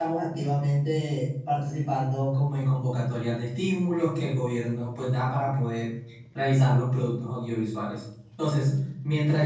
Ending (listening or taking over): listening